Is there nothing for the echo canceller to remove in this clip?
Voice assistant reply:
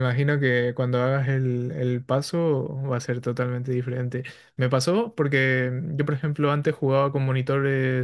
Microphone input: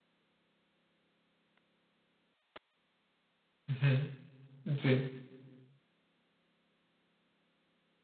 Yes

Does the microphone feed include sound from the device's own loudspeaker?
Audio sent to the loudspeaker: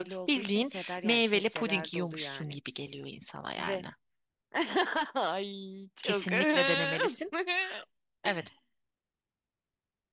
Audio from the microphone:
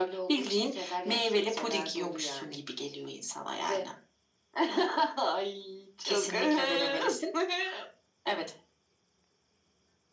Yes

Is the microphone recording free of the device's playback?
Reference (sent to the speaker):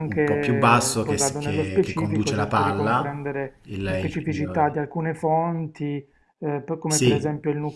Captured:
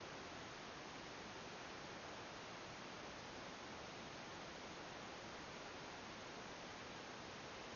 Yes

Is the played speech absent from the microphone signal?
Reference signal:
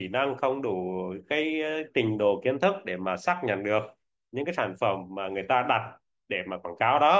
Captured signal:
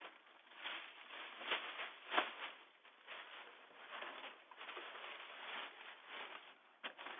Yes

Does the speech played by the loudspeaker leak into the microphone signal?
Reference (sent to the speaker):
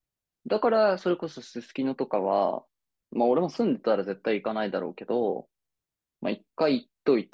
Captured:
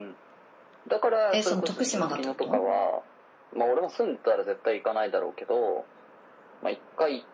Yes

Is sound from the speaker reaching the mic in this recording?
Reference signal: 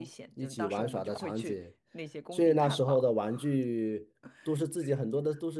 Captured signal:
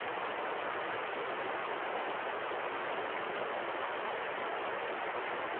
No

